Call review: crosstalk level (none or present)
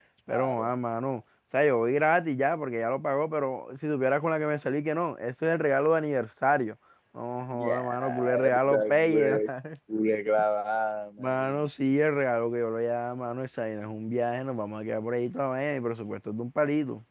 present